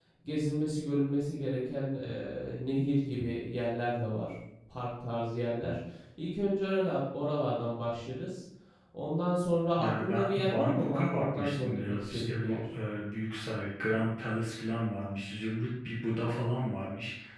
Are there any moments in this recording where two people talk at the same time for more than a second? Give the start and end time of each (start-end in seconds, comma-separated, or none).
9.8-12.6